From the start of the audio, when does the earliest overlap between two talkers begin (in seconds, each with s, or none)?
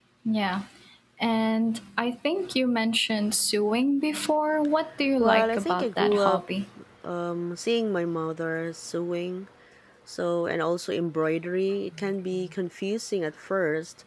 5.2 s